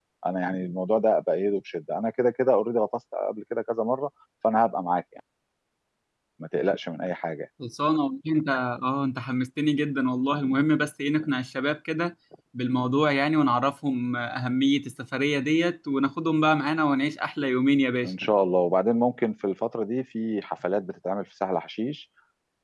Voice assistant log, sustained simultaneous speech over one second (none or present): none